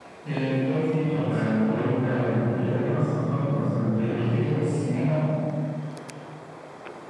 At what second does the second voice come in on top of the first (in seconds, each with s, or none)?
1.1 s